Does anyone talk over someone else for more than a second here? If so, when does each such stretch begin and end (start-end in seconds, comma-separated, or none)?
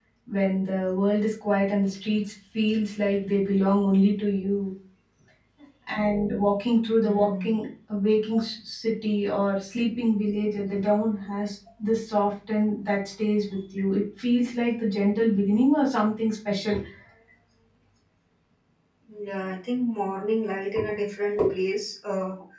none